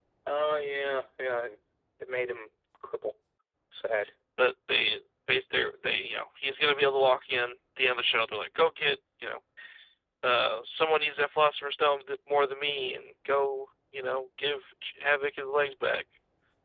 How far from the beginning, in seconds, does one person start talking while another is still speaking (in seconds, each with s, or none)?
none